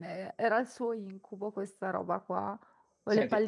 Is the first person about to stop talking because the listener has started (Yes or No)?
No